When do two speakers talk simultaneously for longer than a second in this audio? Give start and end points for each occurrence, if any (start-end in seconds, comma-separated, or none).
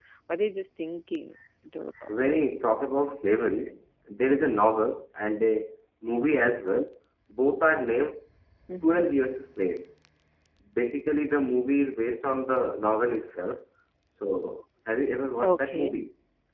none